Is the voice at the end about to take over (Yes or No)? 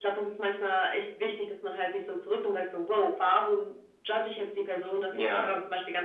No